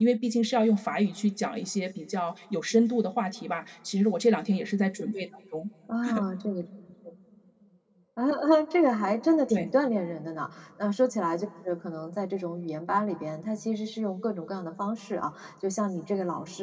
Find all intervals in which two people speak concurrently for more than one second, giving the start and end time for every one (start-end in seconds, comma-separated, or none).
none